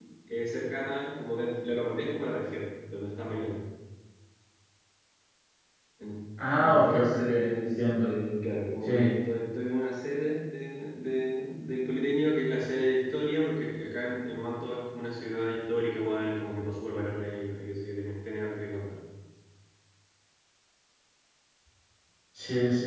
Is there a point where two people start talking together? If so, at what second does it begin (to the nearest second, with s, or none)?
7 s